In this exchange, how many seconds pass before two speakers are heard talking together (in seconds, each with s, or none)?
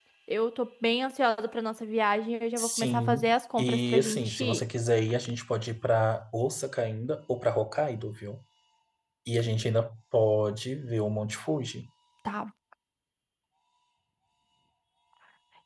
2.6 s